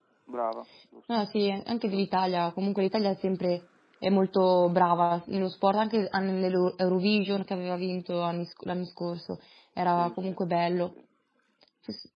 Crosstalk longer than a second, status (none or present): none